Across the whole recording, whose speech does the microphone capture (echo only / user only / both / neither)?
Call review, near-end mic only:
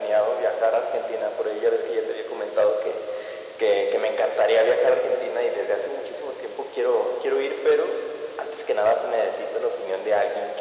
echo only